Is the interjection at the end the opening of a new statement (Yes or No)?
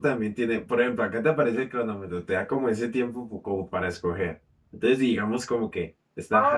Yes